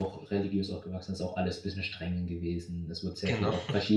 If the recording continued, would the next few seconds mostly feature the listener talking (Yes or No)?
No